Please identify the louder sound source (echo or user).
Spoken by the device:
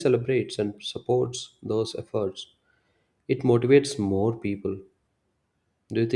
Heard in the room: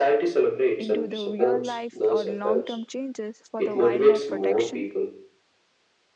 echo